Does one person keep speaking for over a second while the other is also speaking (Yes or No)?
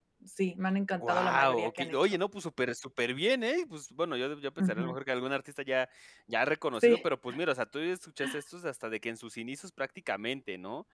Yes